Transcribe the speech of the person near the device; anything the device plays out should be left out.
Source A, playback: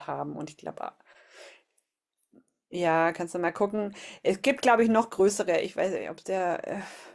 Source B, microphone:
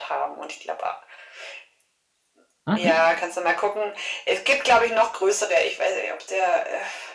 Ah, echt?

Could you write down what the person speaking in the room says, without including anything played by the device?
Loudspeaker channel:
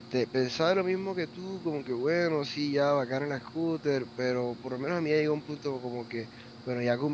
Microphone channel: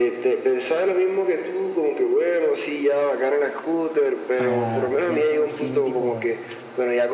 para ya por fin tipo

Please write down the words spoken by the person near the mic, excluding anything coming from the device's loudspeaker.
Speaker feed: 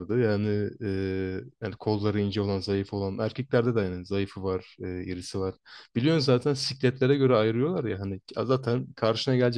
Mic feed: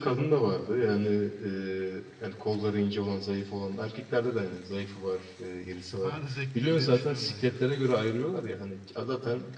Bayağı da zevklidir diye düşünüyorum bence o.

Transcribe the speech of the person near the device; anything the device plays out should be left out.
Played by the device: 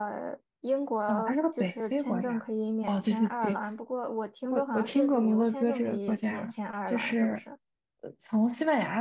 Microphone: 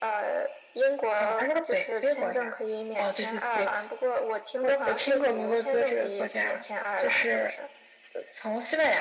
none

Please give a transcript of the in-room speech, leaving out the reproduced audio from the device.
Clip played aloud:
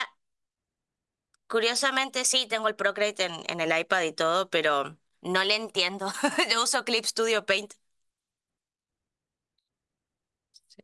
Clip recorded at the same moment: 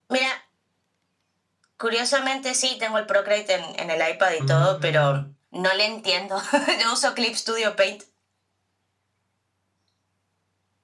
Mm,

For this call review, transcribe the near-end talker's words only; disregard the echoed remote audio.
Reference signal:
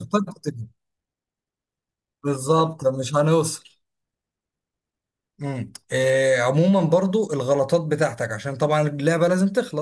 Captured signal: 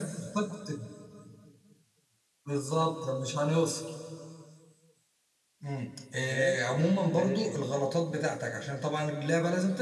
ماشي ماشي

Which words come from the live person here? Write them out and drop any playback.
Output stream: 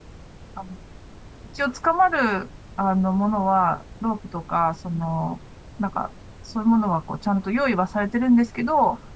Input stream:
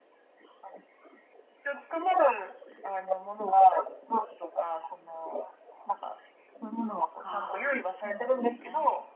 ああ、そうなんですね。

